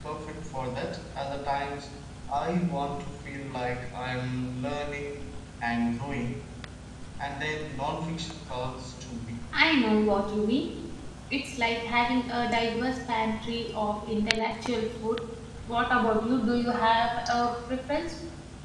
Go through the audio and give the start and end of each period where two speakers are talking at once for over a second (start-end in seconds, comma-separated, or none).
none